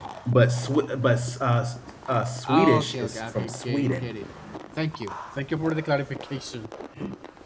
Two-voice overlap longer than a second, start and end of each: 2.4-4.1

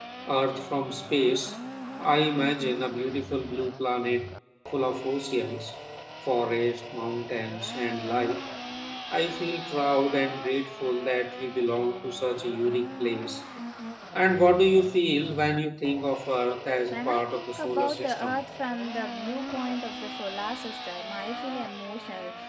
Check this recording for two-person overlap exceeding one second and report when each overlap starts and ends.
16.9-18.4

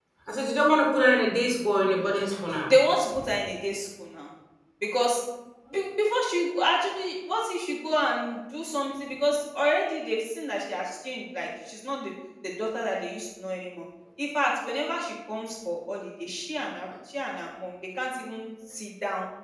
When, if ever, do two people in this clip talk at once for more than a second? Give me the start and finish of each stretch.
none

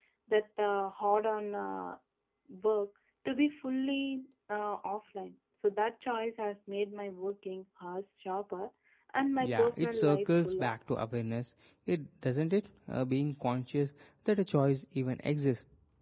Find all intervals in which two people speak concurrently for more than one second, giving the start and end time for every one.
9.4-10.7

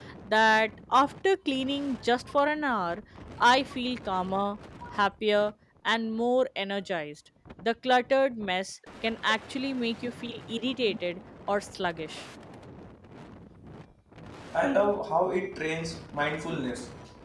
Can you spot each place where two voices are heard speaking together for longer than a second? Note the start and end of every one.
none

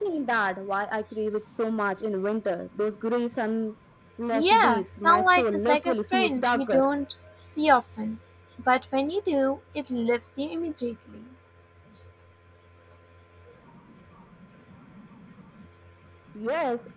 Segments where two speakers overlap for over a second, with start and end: 4.3-6.8

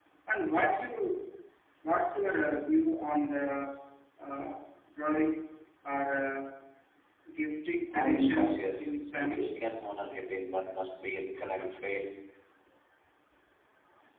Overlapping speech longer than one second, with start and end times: 7.9-9.6

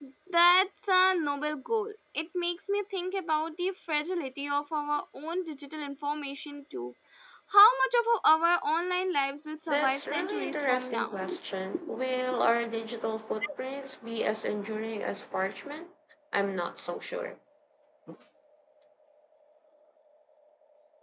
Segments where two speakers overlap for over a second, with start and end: 9.7-11.1

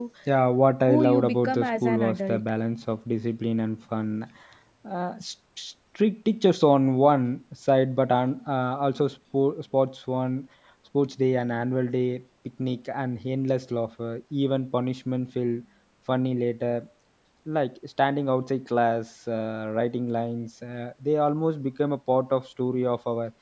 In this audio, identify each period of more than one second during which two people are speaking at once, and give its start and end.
0.9-2.4

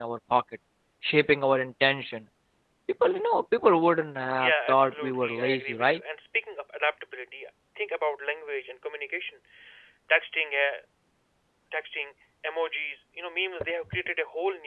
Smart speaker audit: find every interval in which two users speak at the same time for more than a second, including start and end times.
4.4-6.0

